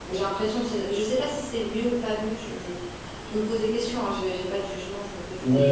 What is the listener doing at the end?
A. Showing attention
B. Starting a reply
B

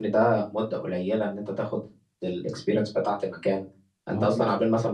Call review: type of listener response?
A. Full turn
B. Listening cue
B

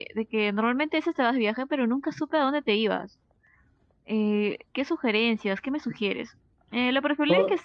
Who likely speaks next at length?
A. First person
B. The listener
A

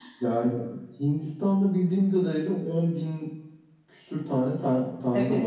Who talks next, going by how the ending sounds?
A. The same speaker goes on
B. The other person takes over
B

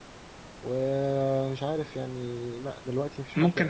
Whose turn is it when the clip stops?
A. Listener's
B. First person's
A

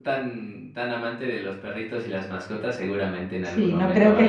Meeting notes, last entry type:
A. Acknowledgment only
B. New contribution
B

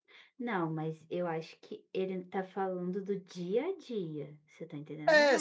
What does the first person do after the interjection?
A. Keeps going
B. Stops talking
B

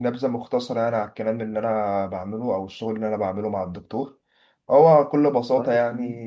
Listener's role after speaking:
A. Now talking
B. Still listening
B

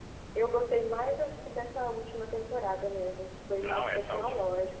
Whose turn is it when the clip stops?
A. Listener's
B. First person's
A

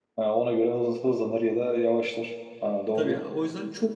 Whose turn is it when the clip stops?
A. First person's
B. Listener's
B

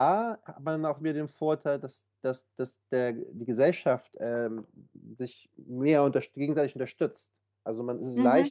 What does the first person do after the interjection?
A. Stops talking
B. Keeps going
B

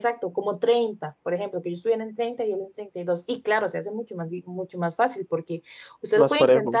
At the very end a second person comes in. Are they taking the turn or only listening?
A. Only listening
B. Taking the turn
A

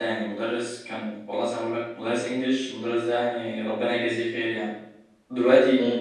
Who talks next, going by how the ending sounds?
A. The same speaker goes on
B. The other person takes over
A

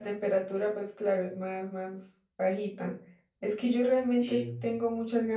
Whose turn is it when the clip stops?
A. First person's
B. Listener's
A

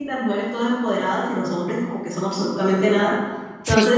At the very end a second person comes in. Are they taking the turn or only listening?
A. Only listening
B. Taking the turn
A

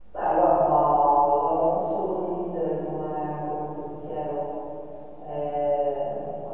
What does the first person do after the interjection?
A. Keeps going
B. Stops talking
A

